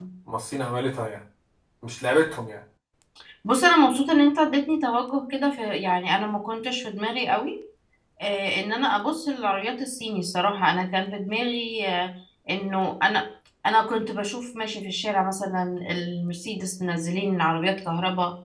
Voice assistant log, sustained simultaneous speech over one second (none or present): none